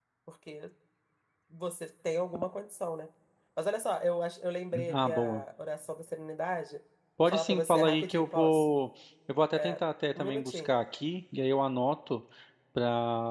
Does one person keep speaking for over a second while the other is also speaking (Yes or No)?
Yes